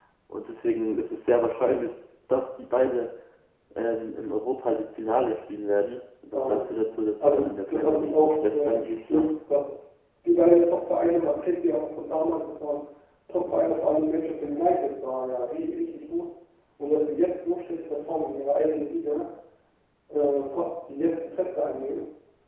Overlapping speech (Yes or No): Yes